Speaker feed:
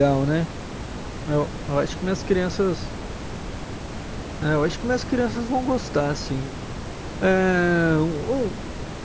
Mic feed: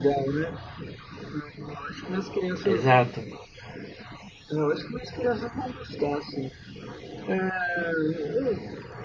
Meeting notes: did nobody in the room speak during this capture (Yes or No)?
No